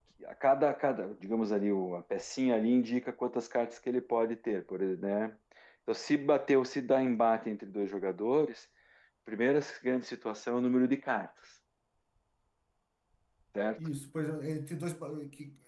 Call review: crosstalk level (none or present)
none